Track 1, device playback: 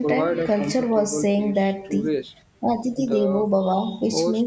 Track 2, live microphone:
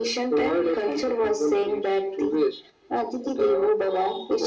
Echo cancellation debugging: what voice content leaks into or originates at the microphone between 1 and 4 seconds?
echo only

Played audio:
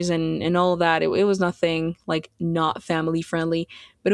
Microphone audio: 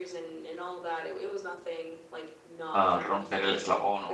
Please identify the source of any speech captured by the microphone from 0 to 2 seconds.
echo only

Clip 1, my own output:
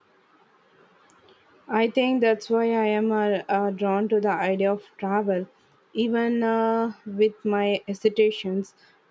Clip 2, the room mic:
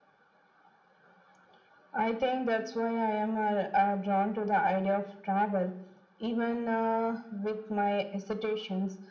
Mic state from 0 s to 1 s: neither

